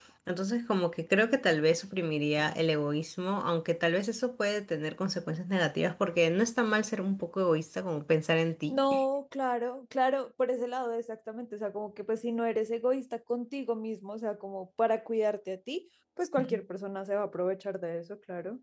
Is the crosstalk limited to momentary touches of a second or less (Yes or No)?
Yes